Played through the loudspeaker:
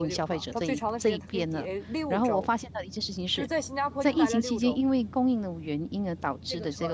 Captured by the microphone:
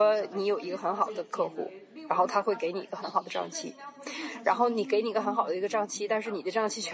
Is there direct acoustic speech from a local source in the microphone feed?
Yes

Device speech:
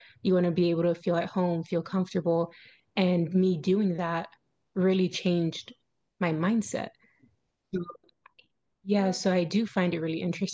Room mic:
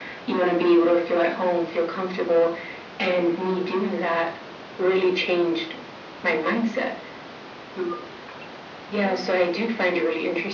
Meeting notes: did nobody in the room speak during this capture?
Yes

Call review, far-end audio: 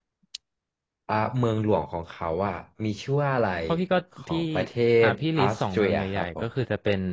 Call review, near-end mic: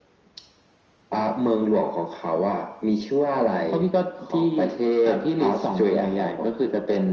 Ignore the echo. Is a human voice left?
No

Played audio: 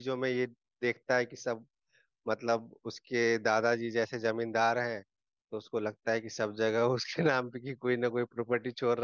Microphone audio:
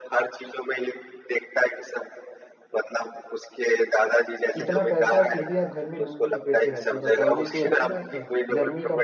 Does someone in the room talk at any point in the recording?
Yes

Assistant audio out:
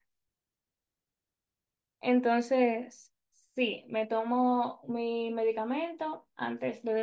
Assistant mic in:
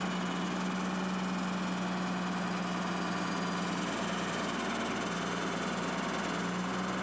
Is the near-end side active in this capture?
No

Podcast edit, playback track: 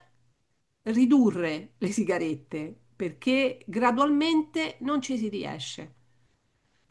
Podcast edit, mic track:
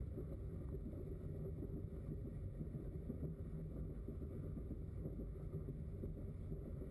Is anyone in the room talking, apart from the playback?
No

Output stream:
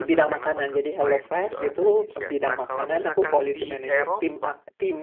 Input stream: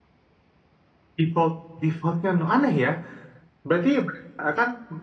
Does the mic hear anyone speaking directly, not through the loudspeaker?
Yes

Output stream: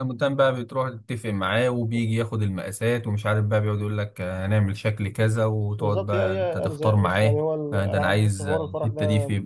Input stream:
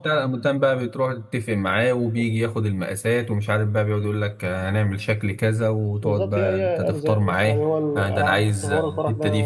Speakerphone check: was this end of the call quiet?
Yes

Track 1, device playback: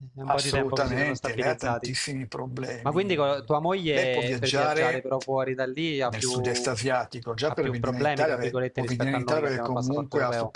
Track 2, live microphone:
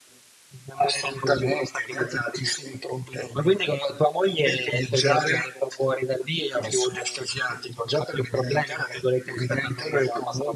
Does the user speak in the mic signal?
No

